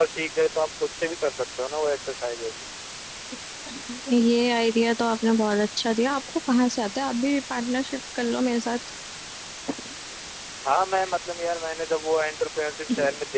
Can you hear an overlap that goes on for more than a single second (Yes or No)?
No